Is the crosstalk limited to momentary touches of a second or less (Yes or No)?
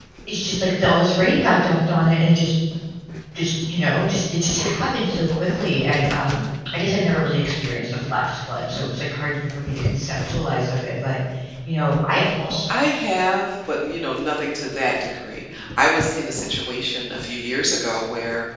Yes